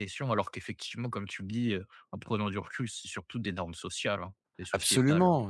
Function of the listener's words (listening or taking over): taking over